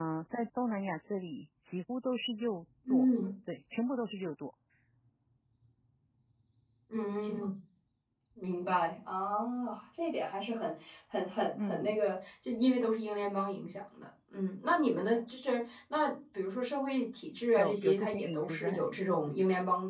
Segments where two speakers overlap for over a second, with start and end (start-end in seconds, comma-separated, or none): 17.6-18.8